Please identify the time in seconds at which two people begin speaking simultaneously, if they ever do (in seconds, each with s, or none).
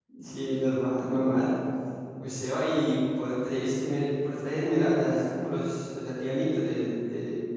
none